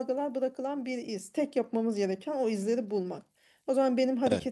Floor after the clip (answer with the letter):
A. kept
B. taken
A